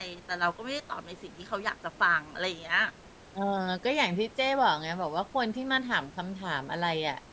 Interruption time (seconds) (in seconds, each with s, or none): none